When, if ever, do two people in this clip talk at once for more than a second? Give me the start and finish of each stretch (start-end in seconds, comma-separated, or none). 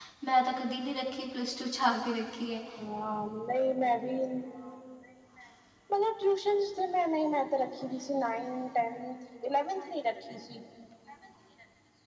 none